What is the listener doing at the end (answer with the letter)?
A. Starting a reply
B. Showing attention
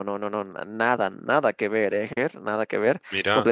B